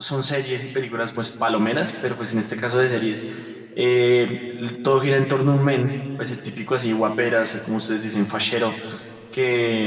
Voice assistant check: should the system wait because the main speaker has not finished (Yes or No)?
Yes